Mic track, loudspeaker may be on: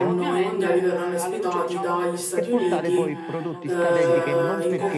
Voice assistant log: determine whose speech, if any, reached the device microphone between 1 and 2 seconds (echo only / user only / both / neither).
both